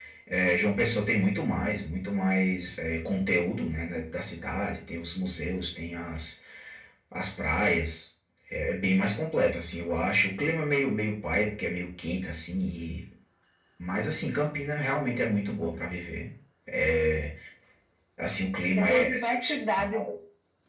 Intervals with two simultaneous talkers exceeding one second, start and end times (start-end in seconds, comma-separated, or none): 18.8-20.1